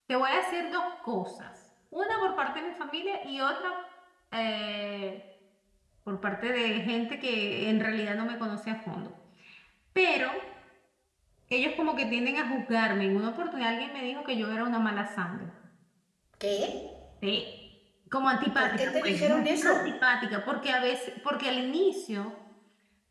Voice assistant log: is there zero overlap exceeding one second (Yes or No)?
No